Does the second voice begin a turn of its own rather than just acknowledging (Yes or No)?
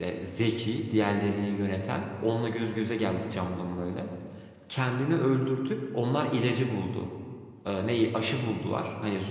No